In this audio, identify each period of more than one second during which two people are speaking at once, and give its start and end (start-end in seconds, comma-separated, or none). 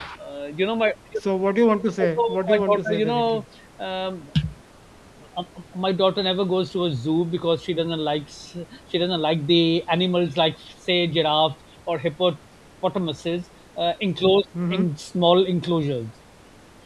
2.0-3.4